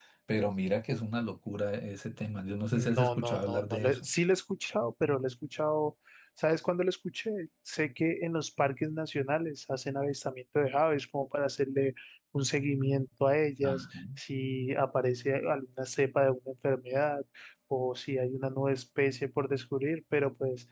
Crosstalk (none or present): present